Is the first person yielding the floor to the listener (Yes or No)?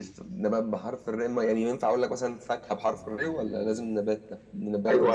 Yes